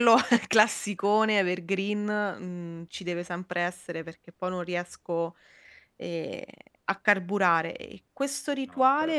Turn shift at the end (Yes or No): No